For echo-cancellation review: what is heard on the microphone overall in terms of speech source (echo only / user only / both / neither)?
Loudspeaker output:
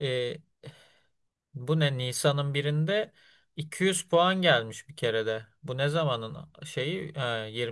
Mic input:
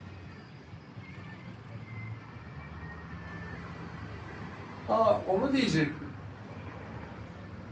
user only